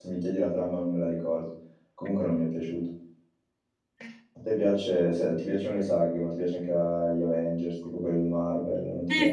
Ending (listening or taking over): taking over